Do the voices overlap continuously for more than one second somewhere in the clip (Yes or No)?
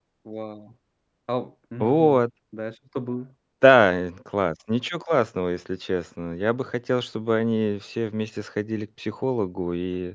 No